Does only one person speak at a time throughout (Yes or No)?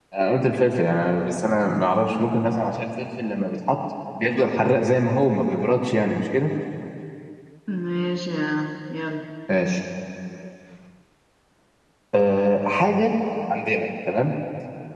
Yes